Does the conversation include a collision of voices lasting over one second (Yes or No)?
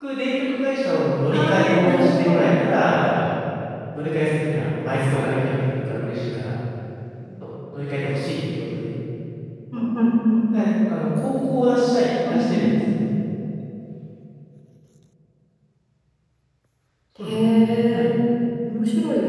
Yes